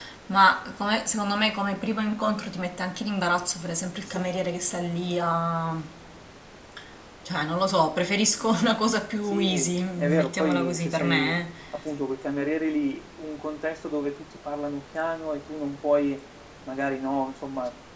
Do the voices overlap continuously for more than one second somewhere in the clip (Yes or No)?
Yes